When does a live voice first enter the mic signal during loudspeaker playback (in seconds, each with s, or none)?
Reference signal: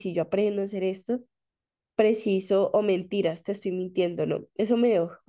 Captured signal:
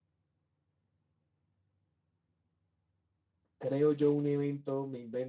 3.6 s